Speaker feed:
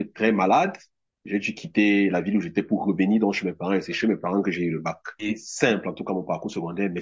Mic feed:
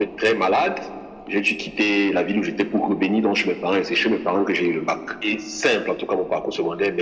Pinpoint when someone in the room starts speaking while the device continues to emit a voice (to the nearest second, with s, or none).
none